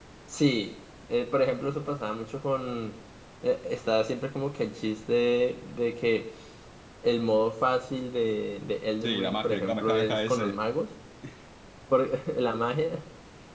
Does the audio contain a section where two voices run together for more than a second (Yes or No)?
Yes